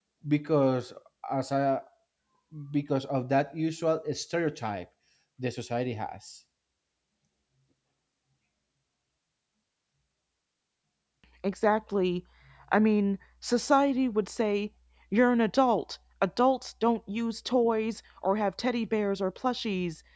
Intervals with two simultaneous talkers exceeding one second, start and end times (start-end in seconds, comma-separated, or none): none